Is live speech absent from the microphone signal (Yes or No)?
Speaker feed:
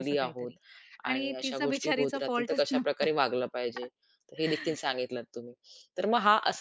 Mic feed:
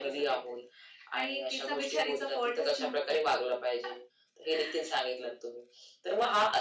Yes